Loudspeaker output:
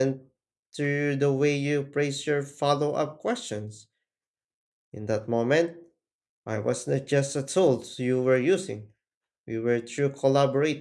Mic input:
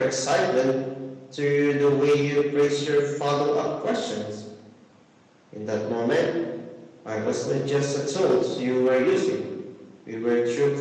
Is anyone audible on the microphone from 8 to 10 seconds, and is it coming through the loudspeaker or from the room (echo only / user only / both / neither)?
echo only